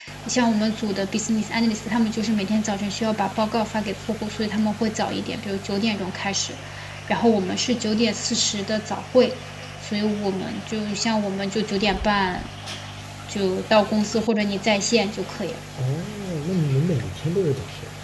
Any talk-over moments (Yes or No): No